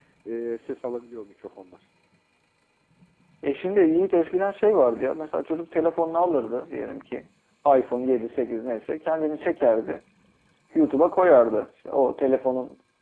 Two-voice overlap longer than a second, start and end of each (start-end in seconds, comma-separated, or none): none